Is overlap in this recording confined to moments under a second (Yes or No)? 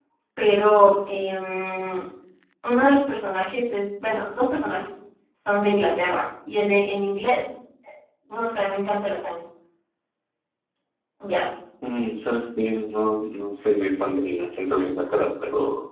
Yes